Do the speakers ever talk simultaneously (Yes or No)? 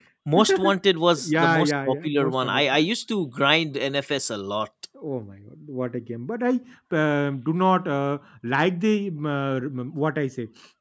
Yes